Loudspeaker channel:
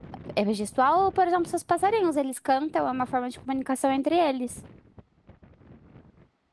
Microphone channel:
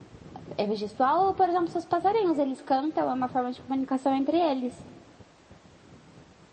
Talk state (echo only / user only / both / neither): echo only